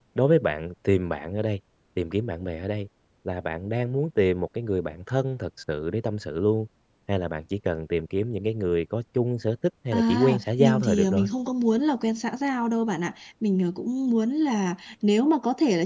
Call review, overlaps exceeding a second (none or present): present